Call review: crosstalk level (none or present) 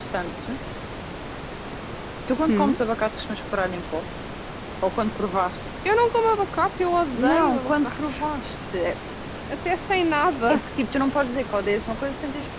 present